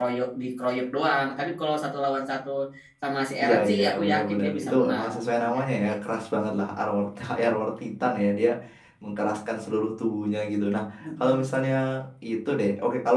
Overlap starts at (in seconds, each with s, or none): 3.4 s